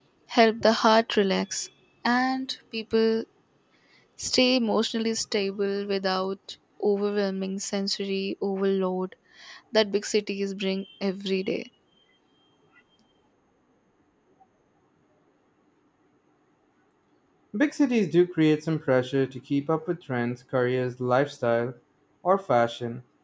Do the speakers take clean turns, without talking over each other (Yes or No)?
Yes